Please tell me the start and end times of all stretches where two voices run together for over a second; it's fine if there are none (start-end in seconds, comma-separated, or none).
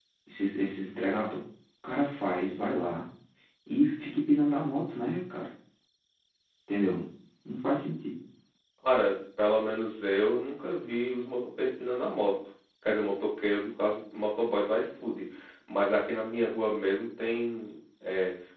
none